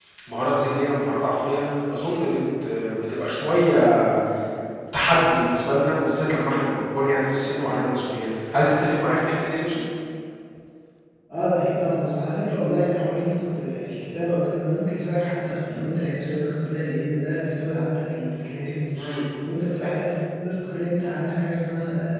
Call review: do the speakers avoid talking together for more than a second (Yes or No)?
Yes